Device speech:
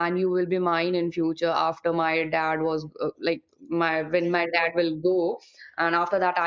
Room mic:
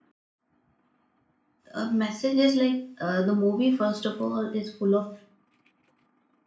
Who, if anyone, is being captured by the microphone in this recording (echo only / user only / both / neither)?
user only